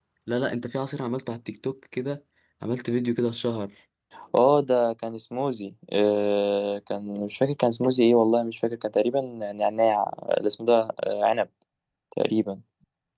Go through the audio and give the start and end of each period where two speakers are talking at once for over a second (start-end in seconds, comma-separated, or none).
none